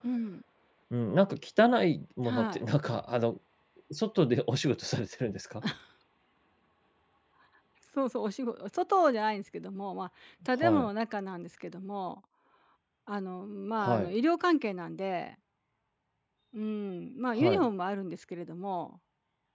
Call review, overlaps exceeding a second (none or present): none